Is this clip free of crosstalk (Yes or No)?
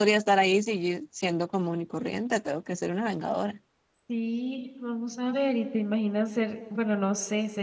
Yes